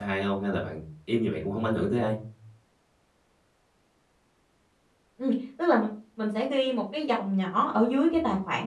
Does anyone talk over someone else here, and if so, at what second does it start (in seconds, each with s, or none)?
none